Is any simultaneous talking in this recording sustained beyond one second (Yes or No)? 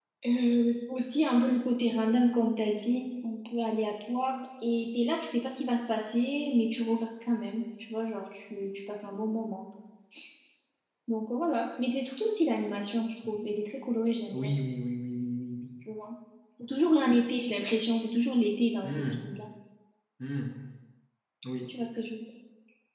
No